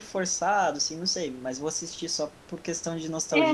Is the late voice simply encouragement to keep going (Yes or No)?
No